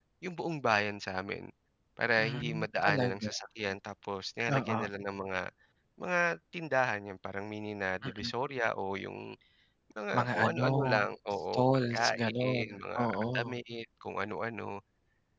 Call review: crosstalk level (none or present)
present